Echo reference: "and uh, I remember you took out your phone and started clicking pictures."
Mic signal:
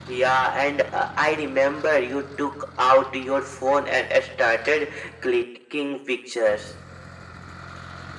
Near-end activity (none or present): none